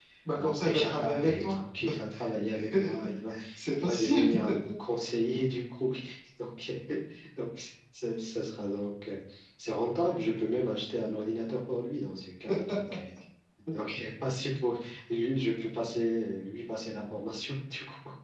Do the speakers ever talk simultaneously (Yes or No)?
Yes